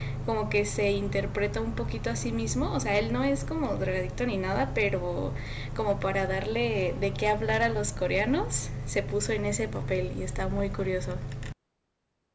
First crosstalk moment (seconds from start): none

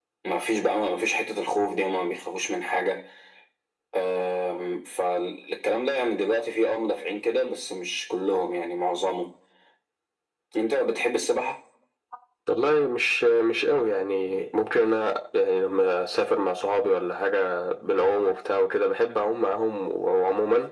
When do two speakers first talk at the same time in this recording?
none

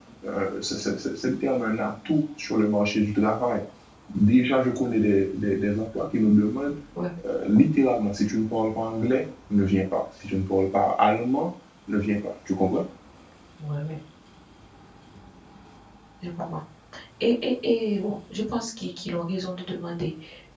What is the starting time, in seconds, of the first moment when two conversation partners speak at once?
none

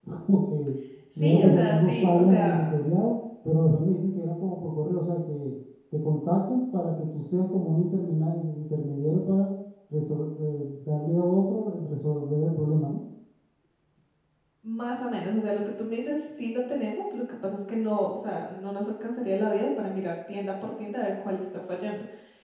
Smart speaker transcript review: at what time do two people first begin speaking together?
1.1 s

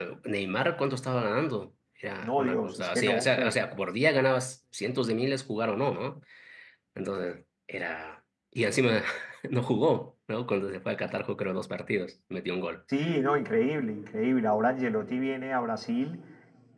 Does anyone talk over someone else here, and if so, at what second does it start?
2.2 s

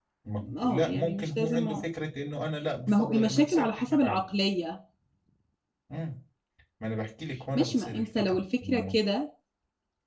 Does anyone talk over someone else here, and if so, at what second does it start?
0.6 s

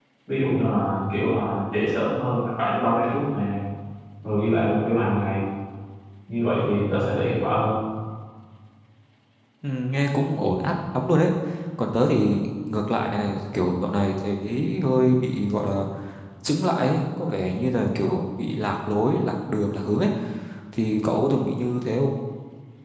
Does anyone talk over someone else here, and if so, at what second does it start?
none

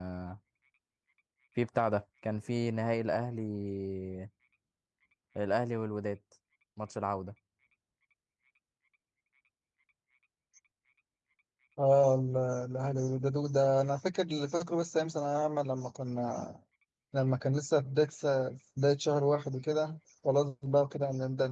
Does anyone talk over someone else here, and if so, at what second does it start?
none

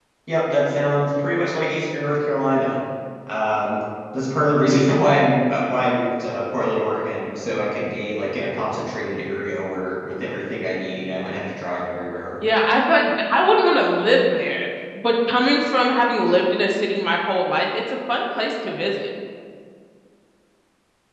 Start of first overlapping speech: none

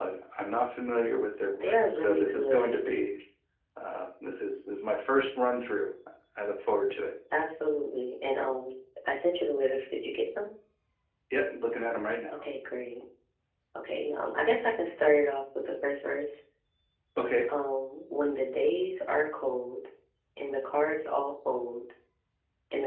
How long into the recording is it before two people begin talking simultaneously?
1.5 s

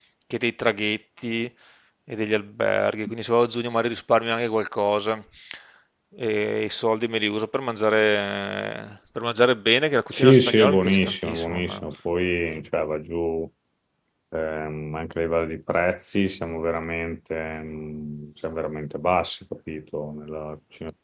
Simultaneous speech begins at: 10.1 s

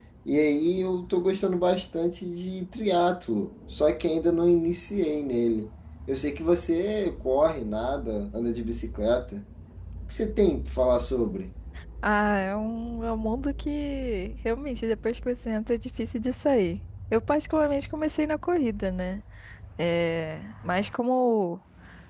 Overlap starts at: none

